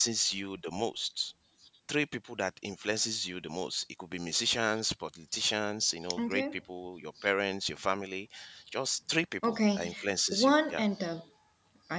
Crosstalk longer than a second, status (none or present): present